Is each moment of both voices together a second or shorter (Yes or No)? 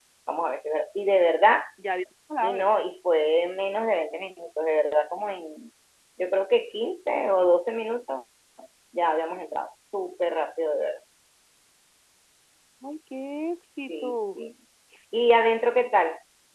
Yes